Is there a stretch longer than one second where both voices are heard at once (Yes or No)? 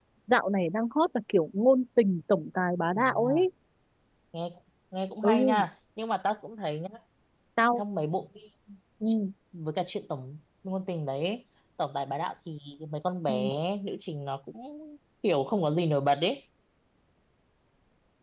No